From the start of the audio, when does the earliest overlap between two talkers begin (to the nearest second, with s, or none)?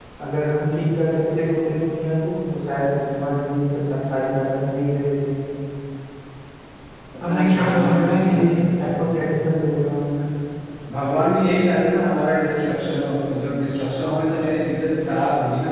7 s